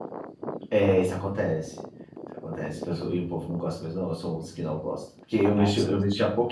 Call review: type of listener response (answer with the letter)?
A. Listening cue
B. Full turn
A